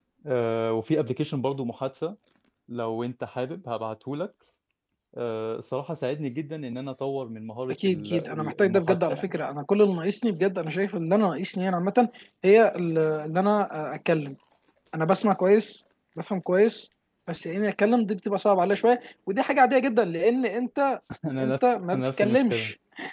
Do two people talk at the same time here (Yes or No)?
Yes